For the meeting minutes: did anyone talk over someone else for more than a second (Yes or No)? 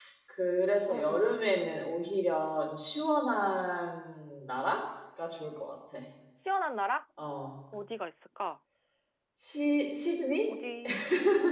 No